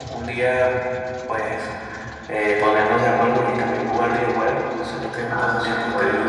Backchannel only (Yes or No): No